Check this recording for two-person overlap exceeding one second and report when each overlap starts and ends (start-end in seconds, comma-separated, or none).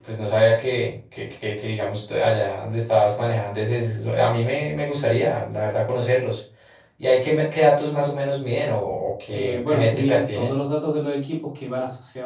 9.3-10.5